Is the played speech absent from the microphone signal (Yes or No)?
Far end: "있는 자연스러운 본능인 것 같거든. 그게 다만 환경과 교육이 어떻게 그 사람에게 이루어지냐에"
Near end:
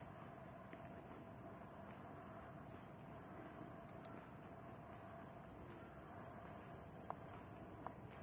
Yes